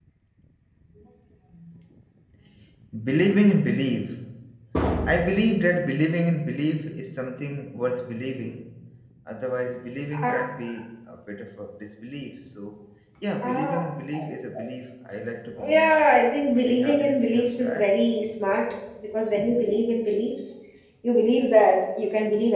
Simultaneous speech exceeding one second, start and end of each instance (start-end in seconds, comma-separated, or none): 16.6-17.9